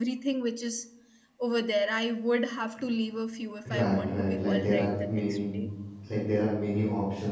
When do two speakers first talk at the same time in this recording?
4 s

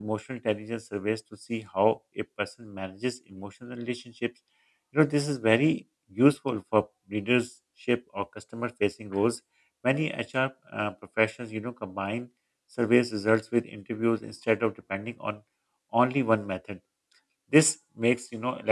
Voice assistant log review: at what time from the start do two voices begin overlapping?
none

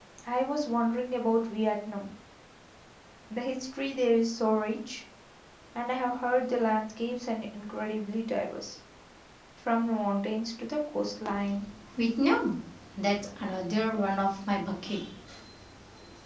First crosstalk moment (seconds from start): none

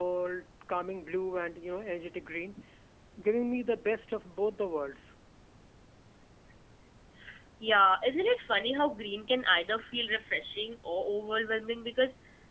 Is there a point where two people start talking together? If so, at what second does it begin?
none

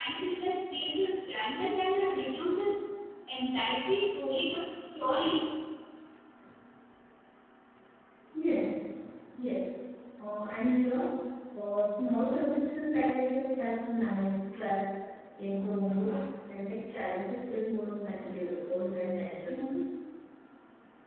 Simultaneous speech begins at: none

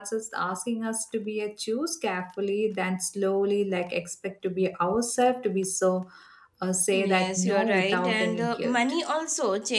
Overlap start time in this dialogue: 7 s

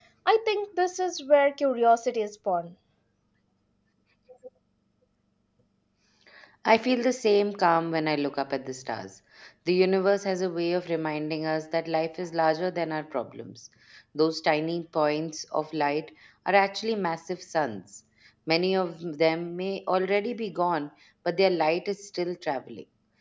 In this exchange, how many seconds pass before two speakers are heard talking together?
none

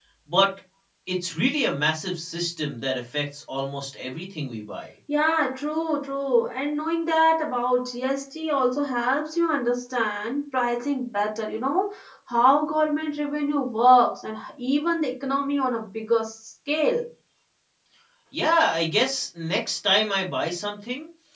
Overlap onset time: none

